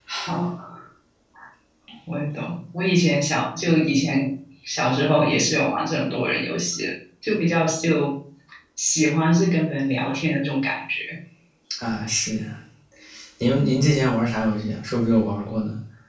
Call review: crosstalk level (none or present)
none